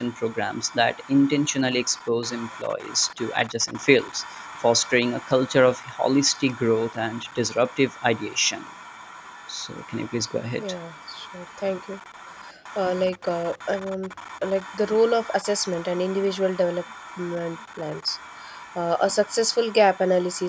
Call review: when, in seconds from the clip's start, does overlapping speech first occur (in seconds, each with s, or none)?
none